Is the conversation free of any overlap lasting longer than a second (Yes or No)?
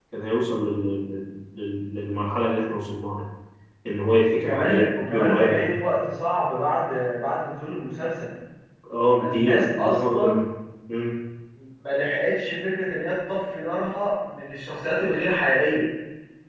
No